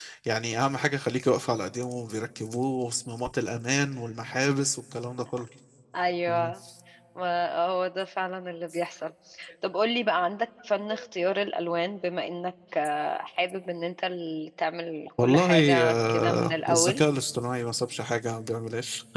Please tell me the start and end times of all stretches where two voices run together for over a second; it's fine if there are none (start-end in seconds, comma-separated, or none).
15.2-17.0